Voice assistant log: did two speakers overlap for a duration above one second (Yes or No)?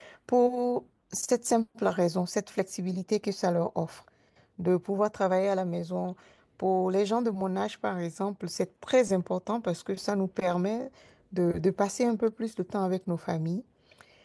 No